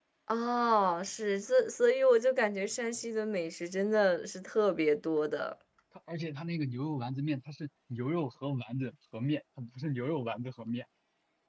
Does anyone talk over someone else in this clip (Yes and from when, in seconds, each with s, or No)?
No